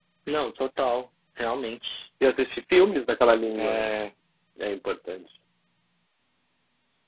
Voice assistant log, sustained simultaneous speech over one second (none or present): none